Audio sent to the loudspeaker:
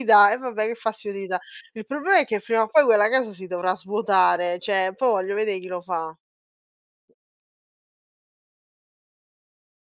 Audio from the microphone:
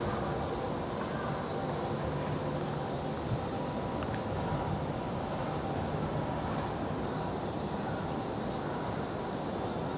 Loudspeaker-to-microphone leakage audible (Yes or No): No